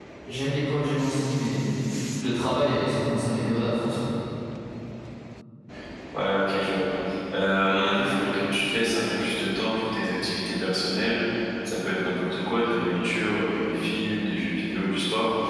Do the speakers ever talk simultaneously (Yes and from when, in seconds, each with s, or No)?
No